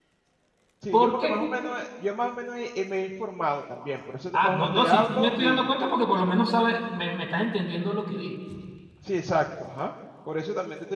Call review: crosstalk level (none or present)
present